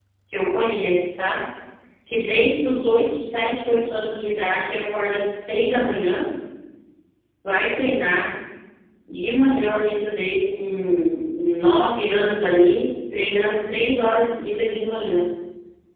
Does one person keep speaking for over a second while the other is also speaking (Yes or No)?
No